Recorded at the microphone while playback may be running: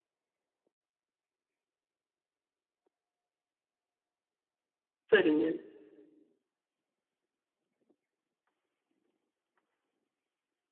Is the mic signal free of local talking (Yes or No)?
No